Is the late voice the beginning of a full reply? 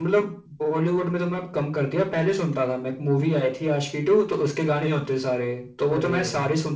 No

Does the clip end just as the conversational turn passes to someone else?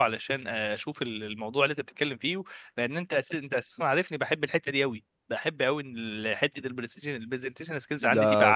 Yes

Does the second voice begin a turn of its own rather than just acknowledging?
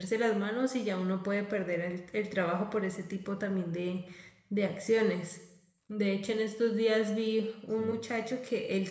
No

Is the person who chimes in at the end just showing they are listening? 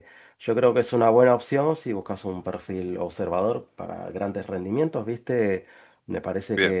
Yes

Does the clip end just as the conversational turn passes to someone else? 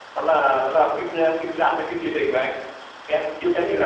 Yes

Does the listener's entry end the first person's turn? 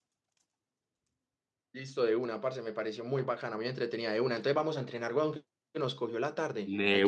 Yes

